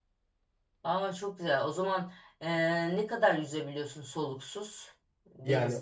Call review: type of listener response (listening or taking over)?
taking over